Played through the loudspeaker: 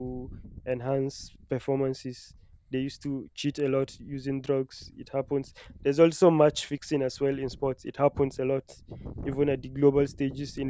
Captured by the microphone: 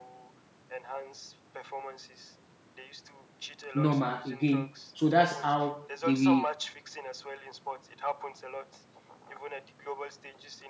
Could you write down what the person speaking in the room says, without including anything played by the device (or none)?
normal again. So that's how they will